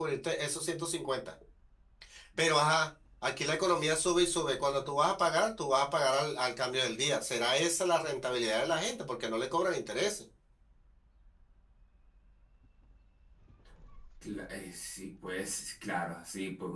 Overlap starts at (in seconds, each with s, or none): none